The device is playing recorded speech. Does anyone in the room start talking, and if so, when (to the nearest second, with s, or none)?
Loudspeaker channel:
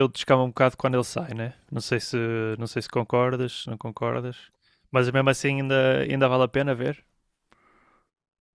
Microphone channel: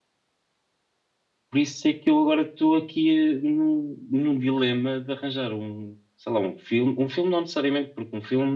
2 s